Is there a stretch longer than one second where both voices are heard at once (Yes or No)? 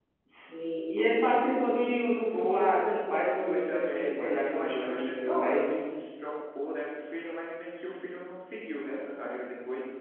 Yes